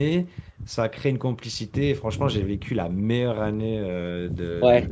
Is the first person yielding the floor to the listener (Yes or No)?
No